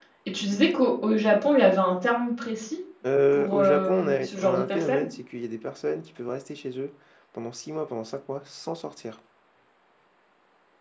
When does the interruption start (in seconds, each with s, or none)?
3.3 s